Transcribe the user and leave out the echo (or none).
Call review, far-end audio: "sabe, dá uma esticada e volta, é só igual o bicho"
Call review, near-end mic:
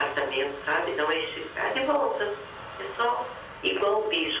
none